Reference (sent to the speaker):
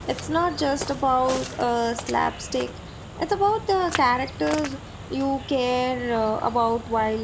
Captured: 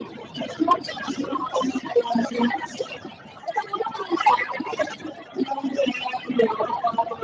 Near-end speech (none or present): none